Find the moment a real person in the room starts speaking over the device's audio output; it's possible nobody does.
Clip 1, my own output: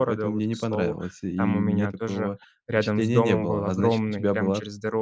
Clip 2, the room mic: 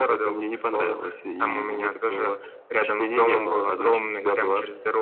none

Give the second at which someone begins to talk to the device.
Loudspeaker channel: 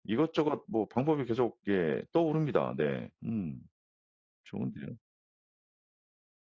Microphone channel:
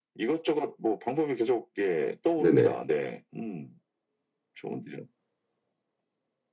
2.4 s

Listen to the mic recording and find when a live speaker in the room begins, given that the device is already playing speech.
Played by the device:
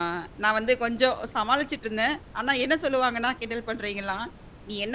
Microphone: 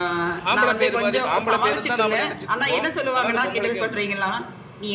0.5 s

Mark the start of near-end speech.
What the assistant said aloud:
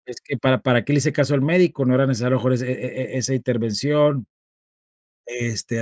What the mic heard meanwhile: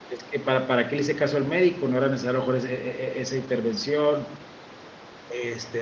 none

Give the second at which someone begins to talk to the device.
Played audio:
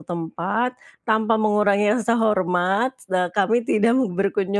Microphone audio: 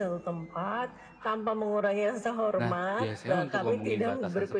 2.6 s

